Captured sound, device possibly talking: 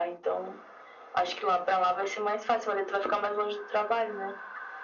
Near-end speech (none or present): none